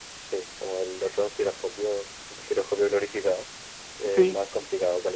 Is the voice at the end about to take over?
No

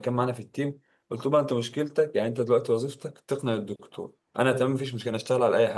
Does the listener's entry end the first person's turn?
No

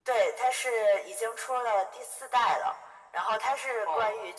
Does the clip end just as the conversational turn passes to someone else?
No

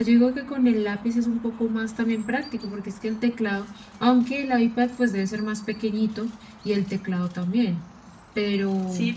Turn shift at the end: Yes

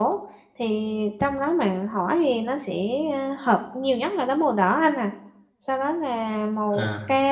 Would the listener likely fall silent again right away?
Yes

